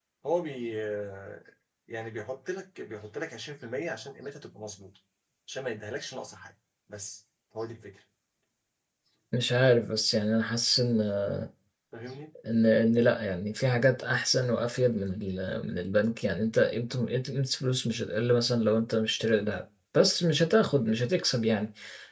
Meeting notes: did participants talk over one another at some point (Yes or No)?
No